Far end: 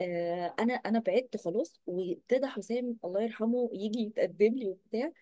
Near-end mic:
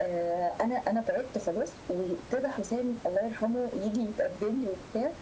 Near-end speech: none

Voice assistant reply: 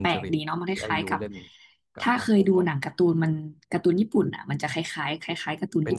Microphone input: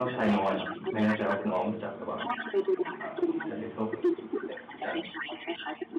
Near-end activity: present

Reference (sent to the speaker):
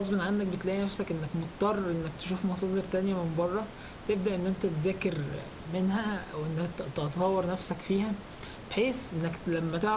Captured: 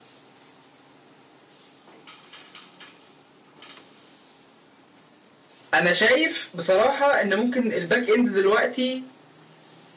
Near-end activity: present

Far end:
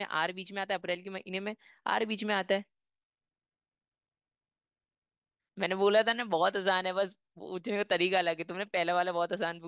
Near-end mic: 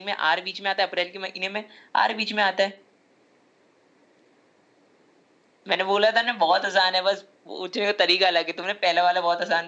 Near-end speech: none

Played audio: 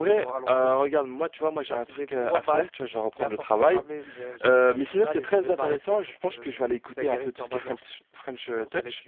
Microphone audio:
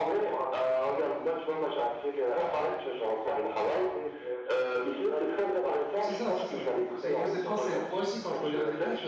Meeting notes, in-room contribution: present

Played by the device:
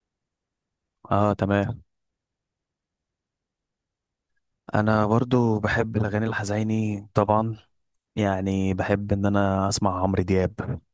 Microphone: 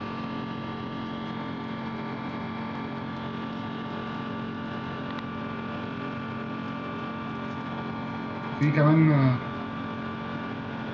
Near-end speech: present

